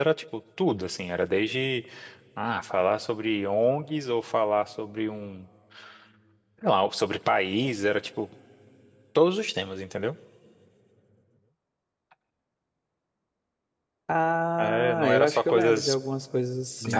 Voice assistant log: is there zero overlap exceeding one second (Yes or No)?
No